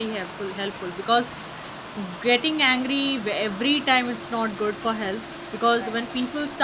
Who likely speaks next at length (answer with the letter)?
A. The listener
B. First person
B